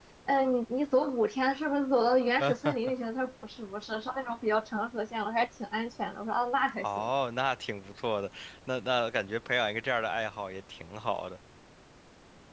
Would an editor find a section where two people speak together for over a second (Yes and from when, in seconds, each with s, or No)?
No